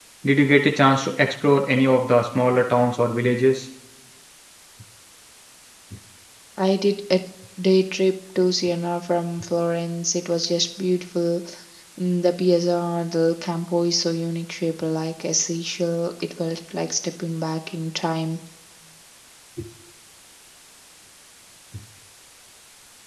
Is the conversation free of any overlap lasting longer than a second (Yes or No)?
Yes